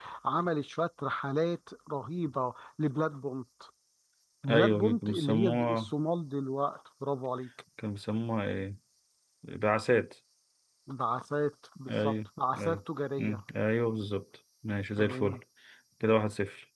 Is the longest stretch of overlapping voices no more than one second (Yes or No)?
No